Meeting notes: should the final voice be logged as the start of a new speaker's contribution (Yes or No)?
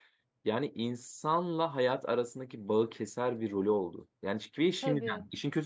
No